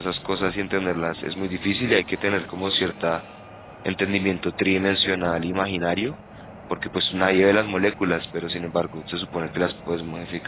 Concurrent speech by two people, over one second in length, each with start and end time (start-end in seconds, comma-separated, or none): none